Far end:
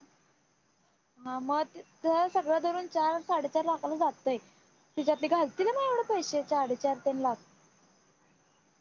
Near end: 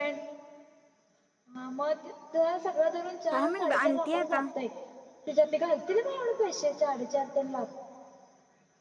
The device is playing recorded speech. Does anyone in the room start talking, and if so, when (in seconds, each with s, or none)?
3.3 s